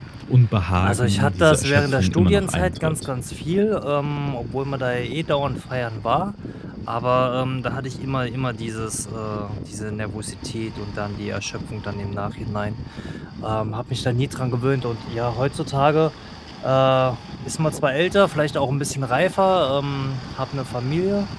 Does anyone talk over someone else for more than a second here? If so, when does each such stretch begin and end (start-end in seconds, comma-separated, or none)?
0.8-3.0